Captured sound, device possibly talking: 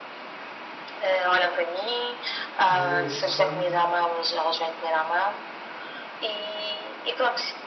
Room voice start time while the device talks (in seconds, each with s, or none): 2.7 s